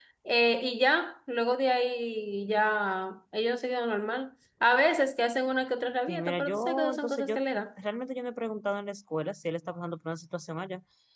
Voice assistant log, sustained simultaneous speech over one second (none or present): present